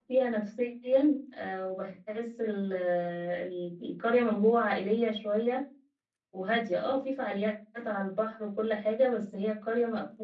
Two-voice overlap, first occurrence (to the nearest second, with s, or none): none